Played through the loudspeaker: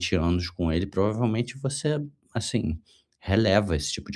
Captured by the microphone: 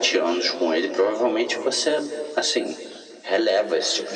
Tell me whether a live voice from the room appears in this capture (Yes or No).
No